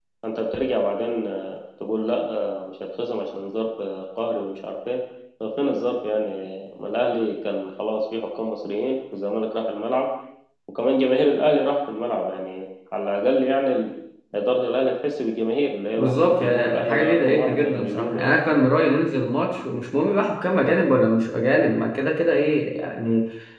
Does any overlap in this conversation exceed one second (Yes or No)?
Yes